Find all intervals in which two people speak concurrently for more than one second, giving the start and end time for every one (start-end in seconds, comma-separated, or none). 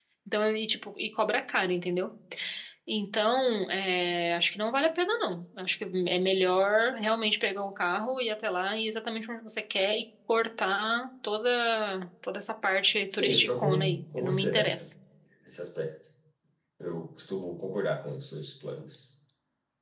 13.1-14.8